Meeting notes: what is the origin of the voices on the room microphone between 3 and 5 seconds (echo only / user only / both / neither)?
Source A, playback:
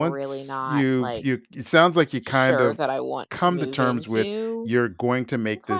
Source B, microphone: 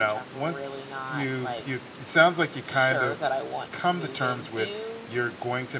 echo only